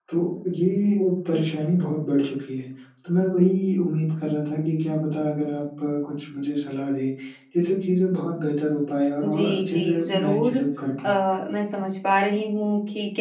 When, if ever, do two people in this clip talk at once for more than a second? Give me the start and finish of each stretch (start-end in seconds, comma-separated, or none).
9.2-10.6